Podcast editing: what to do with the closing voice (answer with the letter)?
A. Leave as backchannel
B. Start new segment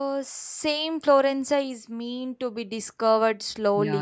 B